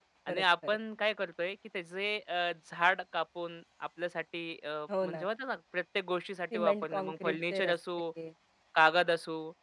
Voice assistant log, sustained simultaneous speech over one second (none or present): present